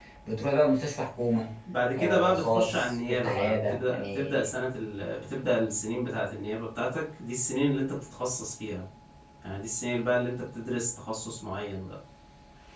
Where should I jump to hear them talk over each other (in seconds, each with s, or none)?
1.9 s